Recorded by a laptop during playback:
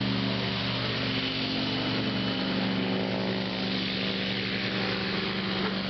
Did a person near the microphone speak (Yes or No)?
No